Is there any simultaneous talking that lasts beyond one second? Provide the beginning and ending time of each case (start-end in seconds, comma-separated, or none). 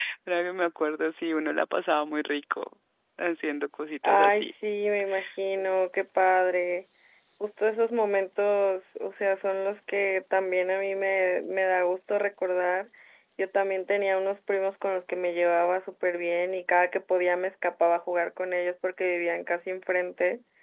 none